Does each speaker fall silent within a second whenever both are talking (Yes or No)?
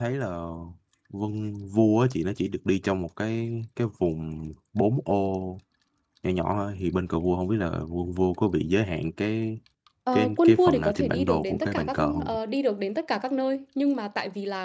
No